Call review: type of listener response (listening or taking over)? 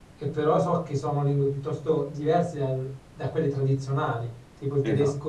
listening